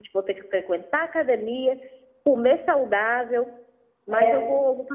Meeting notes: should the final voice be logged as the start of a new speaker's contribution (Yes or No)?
No